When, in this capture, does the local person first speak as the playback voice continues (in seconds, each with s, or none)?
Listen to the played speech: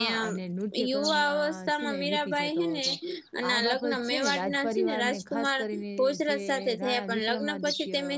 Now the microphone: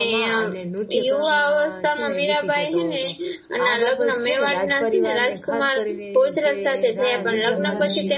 7.1 s